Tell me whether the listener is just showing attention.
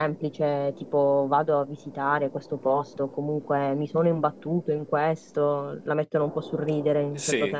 No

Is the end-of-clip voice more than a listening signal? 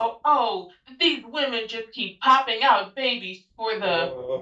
No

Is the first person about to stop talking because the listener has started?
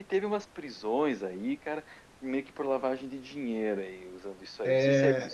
Yes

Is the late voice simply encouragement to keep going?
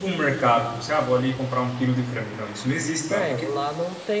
No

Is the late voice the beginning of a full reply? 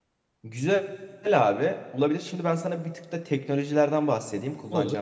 No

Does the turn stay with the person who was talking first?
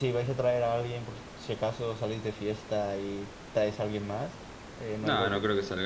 No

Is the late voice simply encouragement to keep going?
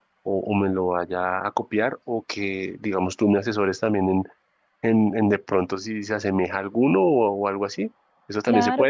No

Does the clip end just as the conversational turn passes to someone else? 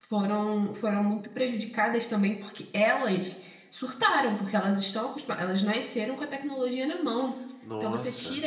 No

